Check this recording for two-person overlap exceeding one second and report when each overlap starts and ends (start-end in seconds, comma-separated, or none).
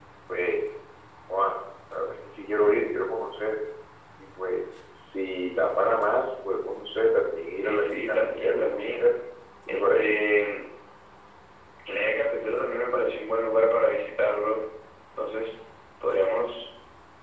7.5-9.1